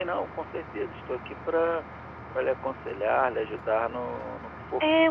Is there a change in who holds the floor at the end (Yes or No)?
Yes